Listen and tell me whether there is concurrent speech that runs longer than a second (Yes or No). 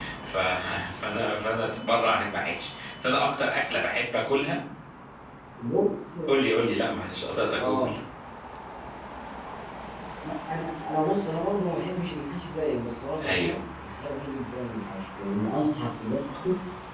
No